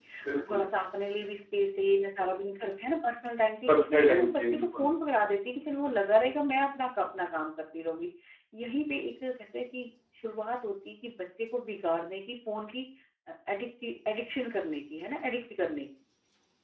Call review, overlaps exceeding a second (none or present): present